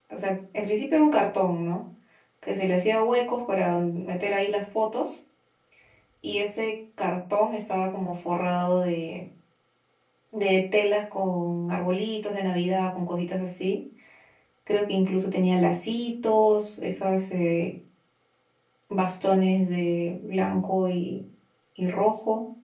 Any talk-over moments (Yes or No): No